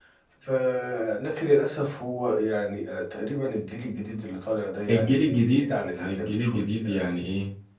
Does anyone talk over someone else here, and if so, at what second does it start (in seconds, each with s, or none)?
4.9 s